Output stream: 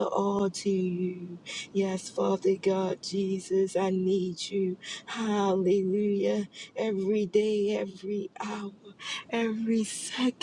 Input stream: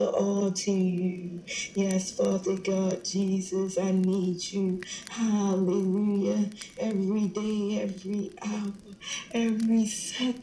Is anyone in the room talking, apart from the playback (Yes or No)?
No